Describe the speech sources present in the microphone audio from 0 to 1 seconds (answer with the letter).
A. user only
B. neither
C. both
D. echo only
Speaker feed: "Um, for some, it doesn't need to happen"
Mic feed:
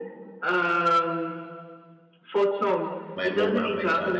D